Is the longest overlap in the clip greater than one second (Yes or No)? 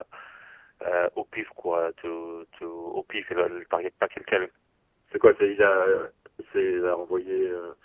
No